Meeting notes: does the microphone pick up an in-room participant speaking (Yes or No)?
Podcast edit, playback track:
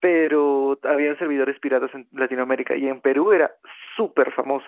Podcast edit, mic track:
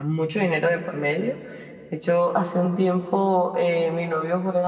Yes